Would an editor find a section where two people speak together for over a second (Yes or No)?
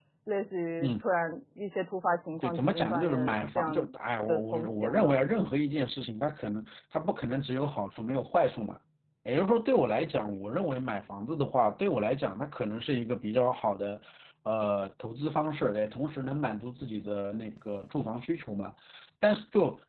Yes